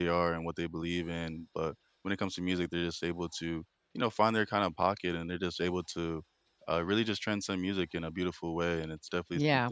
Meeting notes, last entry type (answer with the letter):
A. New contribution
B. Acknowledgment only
A